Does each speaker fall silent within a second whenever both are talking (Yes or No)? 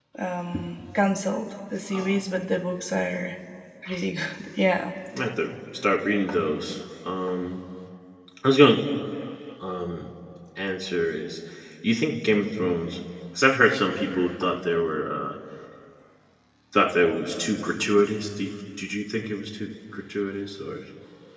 Yes